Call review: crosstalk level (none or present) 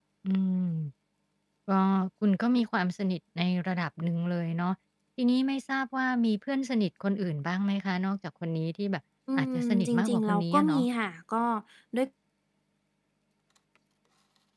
present